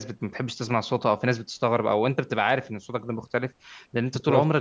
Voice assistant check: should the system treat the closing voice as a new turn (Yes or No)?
No